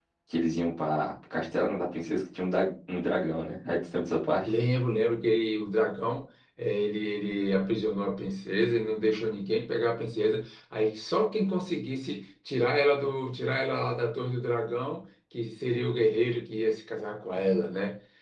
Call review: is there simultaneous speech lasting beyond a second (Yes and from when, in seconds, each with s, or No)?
No